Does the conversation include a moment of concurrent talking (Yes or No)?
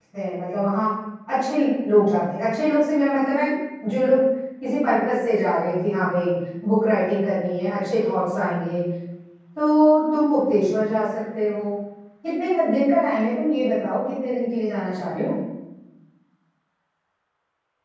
No